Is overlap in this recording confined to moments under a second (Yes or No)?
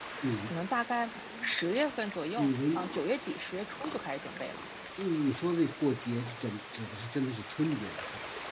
Yes